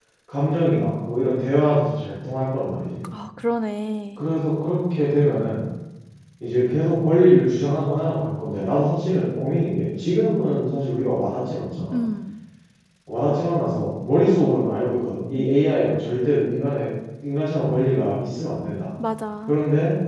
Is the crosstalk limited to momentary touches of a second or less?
Yes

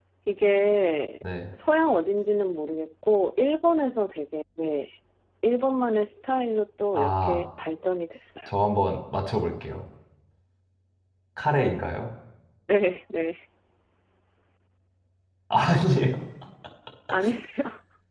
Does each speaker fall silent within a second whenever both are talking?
Yes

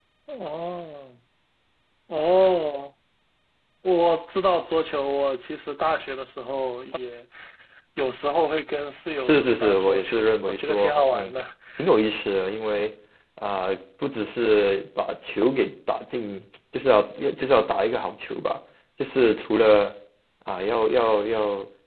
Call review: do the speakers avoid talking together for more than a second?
No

